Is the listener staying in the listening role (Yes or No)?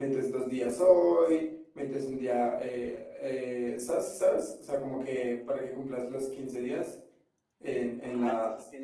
No